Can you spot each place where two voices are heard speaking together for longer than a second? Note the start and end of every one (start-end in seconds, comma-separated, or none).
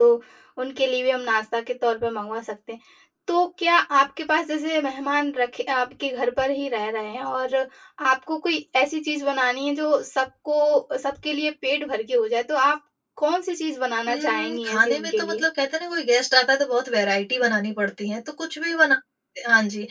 14.1-15.4